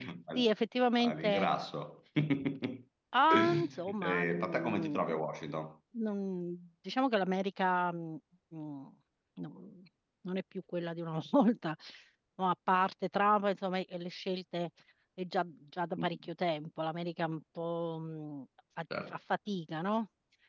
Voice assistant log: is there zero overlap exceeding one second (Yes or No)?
No